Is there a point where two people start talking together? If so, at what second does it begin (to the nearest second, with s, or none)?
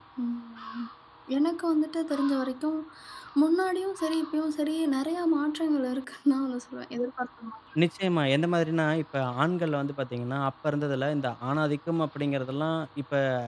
none